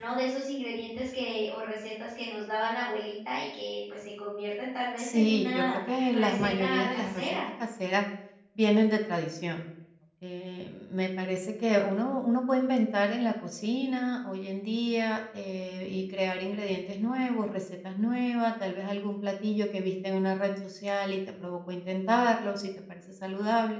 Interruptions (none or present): present